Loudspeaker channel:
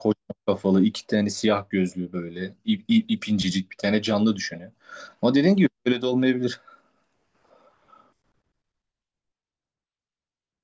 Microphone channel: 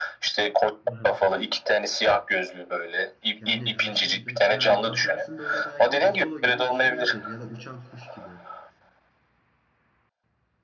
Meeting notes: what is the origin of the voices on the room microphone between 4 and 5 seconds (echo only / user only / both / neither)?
both